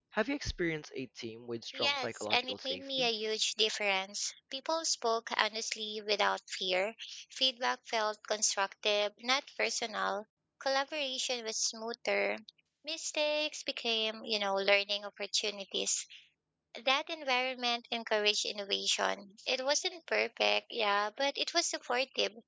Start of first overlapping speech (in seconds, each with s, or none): 1.7 s